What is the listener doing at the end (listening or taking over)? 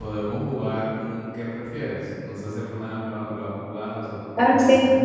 taking over